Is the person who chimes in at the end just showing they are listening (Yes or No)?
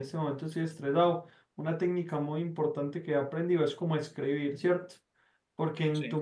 Yes